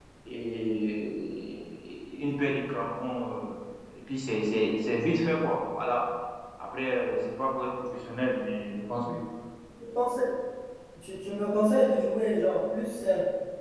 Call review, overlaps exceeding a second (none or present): none